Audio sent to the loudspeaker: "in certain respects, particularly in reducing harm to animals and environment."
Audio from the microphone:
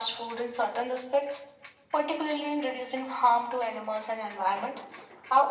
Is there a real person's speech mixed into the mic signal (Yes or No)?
No